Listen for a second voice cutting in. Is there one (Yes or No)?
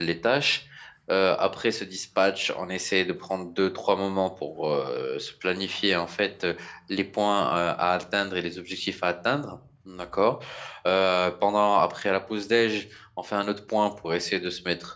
No